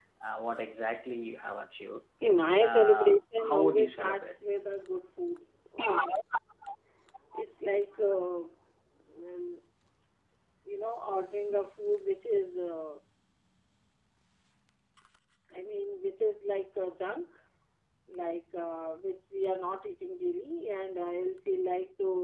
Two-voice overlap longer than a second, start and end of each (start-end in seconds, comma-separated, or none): 2.6-4.3